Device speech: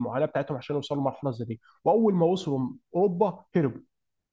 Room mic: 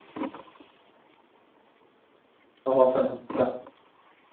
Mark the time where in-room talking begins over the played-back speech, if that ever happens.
2.6 s

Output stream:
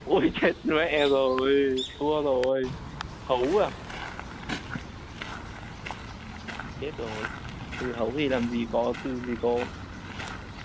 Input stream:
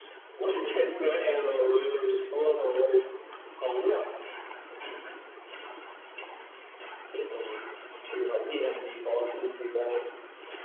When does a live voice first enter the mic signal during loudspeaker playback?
0.6 s

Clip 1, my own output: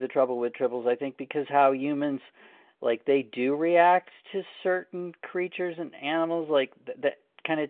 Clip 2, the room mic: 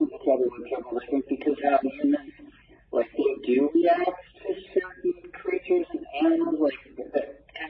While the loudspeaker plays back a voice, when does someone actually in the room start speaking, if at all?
none

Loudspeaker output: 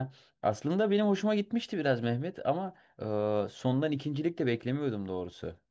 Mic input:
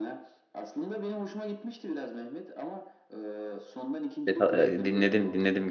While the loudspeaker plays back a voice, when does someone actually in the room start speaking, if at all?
4.3 s

